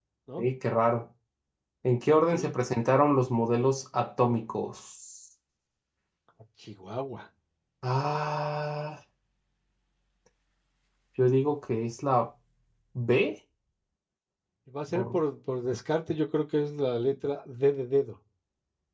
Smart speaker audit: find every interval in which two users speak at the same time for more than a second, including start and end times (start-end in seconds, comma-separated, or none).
none